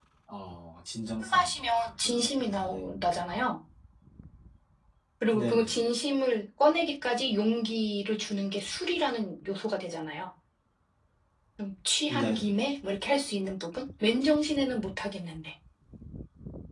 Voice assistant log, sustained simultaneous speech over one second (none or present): none